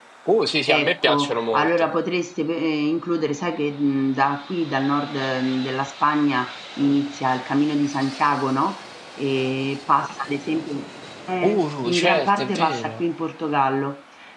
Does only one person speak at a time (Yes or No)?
No